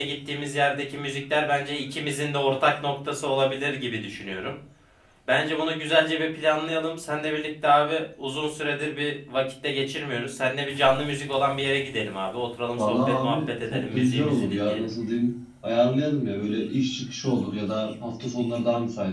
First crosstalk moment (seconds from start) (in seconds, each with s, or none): 12.8 s